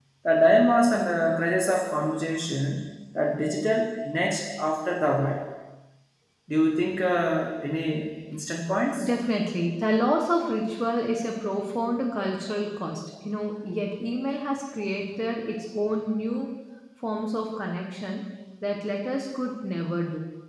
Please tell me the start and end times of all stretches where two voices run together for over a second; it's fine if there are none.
none

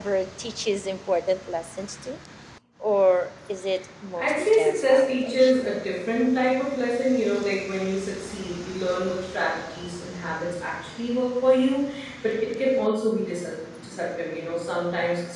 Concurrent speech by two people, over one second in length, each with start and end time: 4.2-5.5

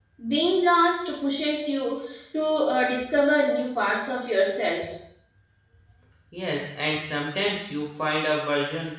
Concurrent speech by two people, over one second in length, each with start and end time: none

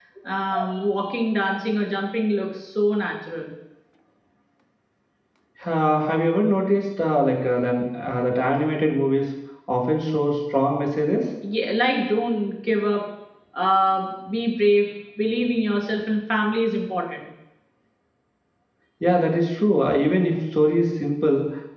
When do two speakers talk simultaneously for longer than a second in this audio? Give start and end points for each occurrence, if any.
none

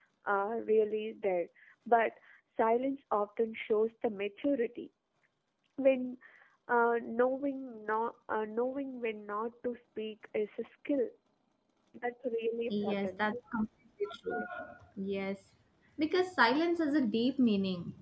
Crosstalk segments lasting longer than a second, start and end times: none

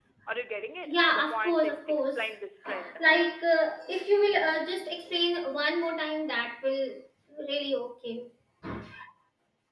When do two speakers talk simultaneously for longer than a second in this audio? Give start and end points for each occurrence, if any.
0.8-2.2

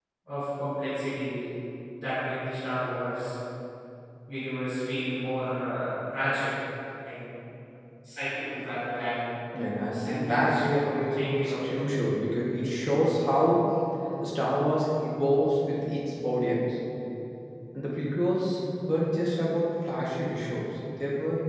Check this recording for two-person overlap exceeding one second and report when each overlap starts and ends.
9.9-11.7

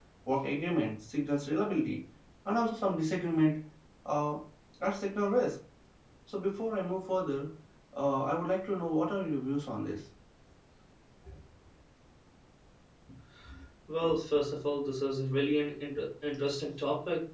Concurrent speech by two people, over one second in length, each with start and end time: none

